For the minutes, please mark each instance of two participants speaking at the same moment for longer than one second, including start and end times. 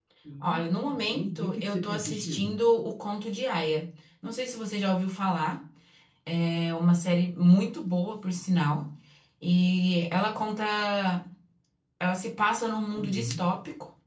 1.0-2.5

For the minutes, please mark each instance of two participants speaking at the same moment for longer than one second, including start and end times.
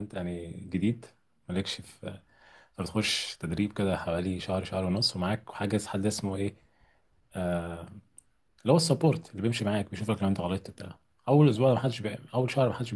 none

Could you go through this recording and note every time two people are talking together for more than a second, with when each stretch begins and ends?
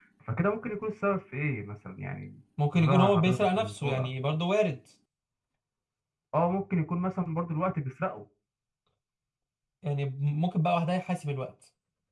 2.7-4.1

